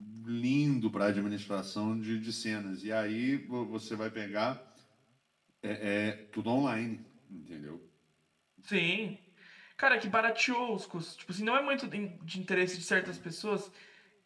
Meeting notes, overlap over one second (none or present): none